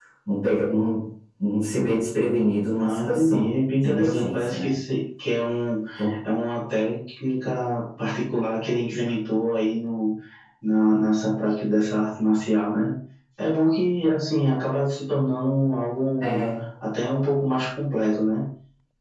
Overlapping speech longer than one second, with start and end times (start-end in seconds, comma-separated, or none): 2.7-4.7